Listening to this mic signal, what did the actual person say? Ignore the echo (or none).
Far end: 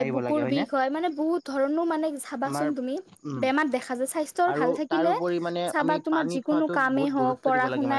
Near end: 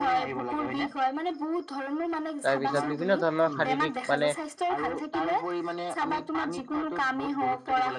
তাৰপিছত বিভিন্ন ধৰণৰ শাৰীৰিক মানে